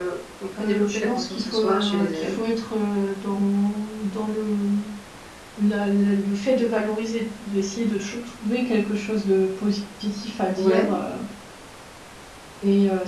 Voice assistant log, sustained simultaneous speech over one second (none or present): present